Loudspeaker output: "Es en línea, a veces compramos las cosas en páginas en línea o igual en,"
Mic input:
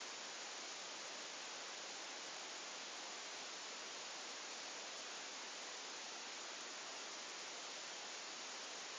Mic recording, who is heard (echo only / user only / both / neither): neither